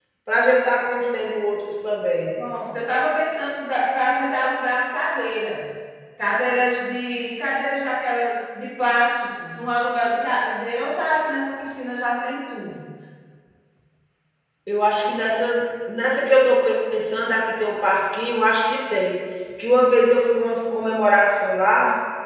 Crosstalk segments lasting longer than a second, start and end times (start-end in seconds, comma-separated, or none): none